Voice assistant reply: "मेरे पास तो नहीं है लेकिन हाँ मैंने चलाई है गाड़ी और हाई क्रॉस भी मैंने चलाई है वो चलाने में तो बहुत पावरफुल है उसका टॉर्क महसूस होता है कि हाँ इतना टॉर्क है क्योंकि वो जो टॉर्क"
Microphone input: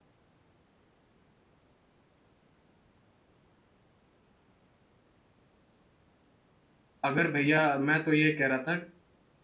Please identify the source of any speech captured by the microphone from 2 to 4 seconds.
neither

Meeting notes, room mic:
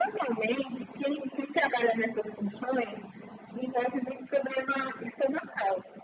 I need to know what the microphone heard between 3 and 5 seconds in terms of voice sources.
echo only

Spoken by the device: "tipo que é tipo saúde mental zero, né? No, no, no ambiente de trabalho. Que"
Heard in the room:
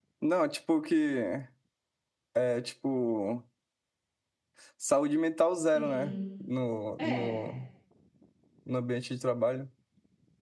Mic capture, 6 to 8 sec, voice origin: both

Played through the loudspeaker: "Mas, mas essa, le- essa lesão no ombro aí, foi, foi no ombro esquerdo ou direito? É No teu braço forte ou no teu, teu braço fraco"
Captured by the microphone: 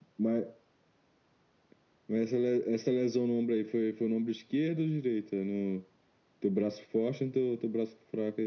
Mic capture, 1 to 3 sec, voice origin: echo only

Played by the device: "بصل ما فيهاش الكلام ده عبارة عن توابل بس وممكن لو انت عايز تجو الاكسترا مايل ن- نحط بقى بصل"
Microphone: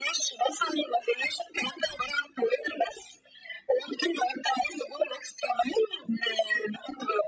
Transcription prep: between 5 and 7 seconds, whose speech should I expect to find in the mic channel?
echo only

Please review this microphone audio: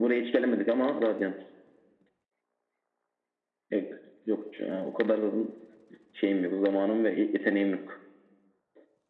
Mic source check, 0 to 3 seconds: echo only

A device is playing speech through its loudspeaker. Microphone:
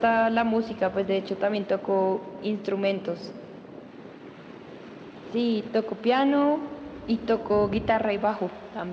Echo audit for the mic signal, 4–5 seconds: neither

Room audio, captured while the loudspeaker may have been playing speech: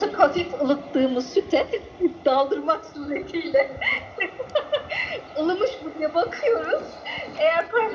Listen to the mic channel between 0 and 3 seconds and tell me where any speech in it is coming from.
echo only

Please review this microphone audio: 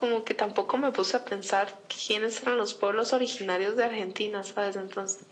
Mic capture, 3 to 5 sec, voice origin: echo only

